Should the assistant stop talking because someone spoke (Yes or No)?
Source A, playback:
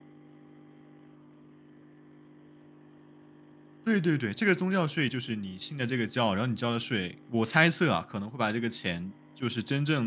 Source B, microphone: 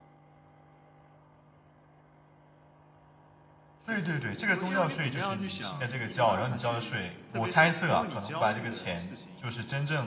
Yes